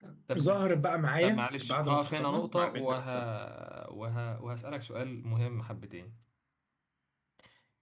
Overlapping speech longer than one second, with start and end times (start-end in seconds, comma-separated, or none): 1.2-3.0